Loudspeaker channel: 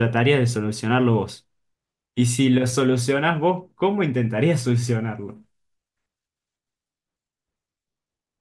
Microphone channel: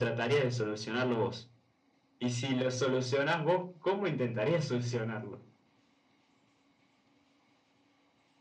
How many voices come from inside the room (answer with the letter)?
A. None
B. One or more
A